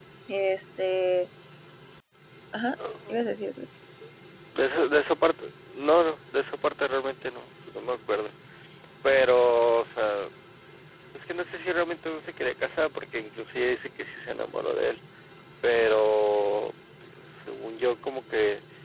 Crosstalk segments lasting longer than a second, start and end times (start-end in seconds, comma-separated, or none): none